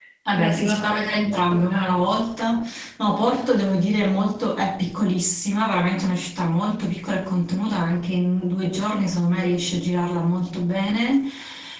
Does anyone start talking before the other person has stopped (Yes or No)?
Yes